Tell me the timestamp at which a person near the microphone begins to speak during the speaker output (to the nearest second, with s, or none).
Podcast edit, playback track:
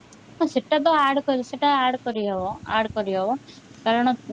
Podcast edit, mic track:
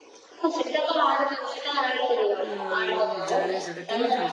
2 s